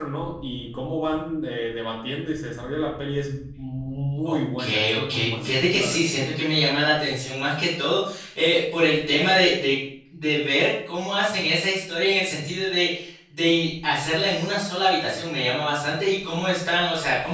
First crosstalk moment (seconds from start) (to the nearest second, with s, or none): 4 s